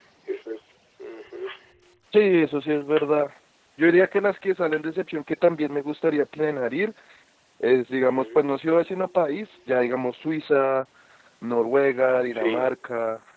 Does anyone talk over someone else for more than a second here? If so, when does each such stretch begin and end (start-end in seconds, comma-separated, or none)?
none